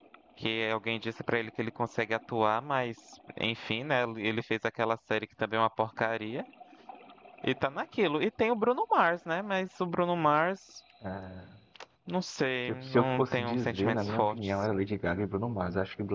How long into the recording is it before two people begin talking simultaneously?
13 s

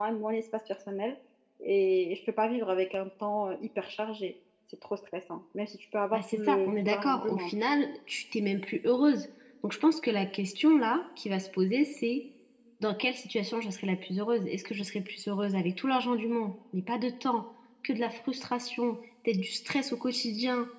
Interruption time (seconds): 6 s

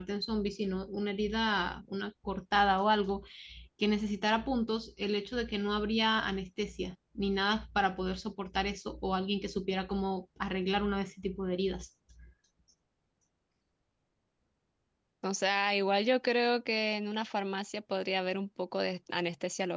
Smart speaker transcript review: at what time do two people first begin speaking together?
none

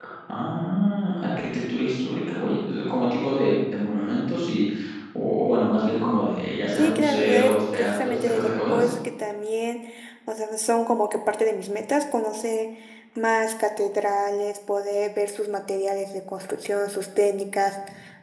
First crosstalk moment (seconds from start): 7 s

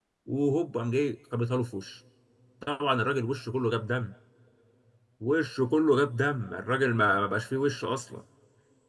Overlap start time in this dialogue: none

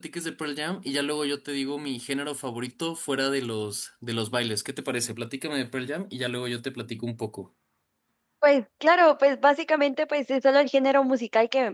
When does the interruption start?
none

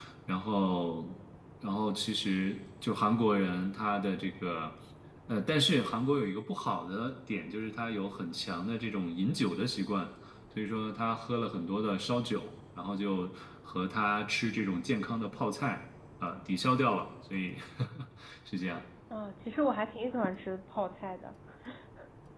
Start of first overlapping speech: none

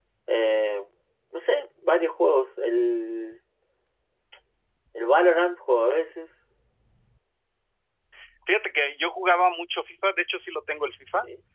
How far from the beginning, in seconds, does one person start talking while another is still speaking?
none

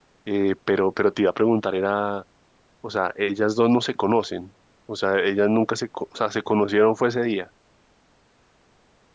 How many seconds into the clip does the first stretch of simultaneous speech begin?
none

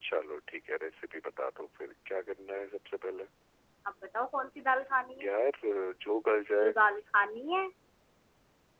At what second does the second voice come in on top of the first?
none

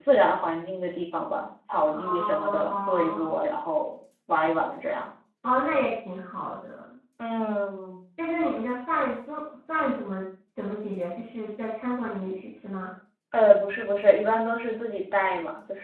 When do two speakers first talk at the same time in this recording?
2 s

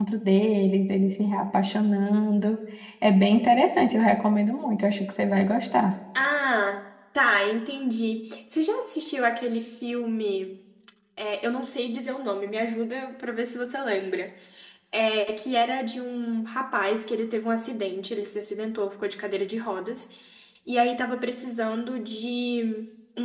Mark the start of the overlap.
none

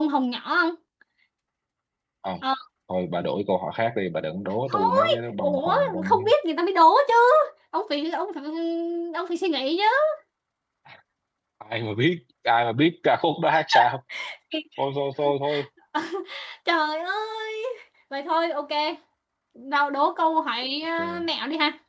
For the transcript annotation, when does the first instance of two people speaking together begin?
5 s

